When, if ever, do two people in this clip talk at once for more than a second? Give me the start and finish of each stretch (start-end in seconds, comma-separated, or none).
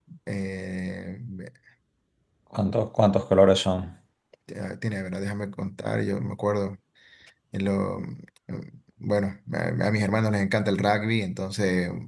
none